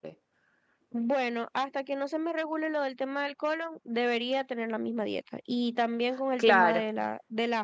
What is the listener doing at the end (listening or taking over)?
listening